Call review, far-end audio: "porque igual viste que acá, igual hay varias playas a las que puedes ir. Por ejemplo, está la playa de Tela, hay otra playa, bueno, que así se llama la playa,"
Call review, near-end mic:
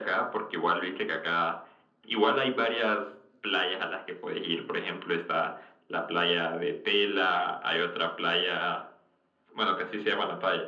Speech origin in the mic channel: echo only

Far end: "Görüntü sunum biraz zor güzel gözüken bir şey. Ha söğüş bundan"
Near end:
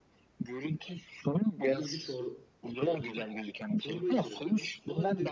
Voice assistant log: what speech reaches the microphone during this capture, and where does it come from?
both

